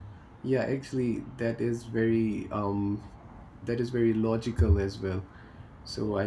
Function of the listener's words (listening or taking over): listening